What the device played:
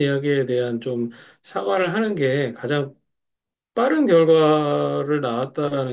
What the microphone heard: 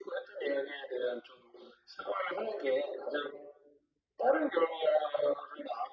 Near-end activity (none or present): none